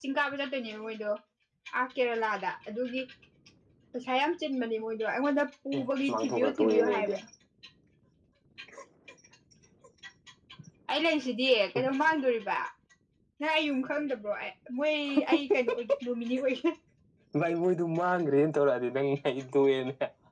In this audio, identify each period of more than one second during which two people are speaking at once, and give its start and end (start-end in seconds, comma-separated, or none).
5.8-7.1